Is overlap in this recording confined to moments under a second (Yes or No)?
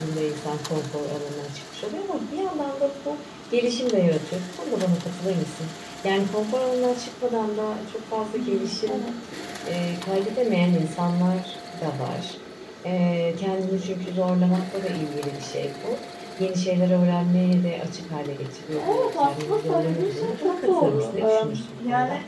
No